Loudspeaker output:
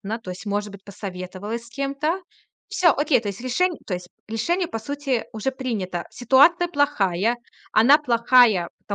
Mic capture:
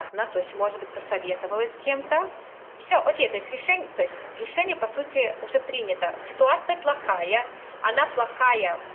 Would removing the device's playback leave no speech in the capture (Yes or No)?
Yes